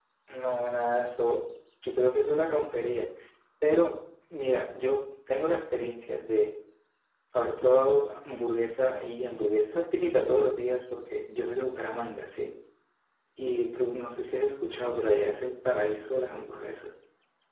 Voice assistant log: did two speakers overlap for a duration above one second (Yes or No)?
No